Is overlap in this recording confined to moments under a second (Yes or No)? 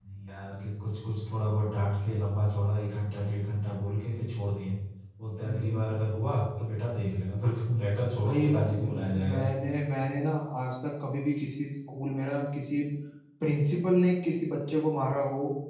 No